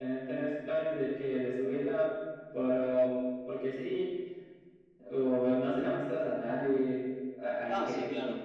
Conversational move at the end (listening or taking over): taking over